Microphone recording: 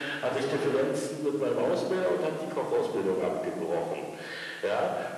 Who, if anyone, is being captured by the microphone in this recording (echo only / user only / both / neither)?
echo only